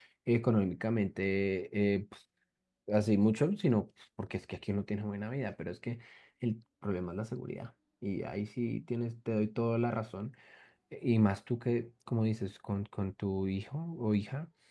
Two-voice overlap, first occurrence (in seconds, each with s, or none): none